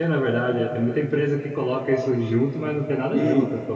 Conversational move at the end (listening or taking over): taking over